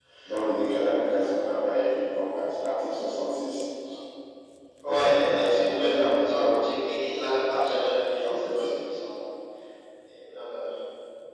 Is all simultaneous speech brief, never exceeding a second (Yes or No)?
No